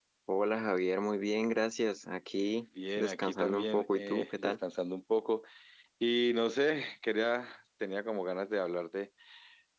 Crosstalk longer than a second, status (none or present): present